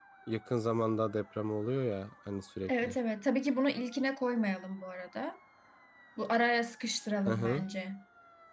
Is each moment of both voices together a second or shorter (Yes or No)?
Yes